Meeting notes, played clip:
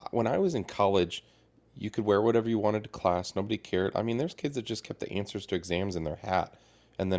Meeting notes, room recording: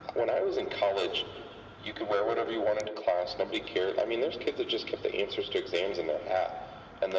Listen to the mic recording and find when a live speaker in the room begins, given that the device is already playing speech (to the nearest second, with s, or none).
none